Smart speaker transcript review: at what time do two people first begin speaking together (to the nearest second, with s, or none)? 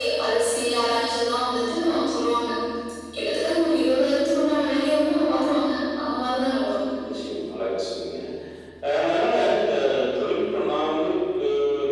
none